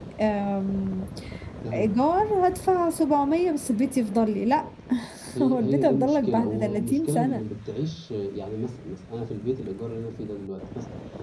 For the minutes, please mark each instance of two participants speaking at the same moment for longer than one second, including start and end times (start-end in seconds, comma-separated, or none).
5.4-7.4